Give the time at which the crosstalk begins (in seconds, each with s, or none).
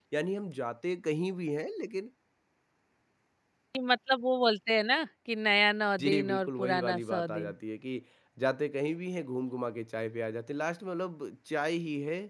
6.0 s